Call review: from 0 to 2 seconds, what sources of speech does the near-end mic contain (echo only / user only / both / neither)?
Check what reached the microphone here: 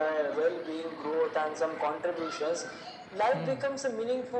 echo only